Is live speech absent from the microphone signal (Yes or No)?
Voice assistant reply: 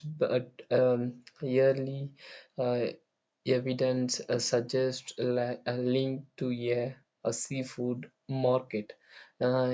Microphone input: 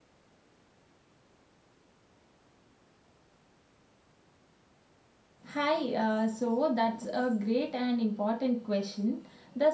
No